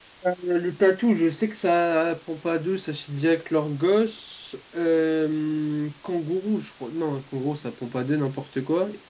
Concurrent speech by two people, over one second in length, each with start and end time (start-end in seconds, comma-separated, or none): none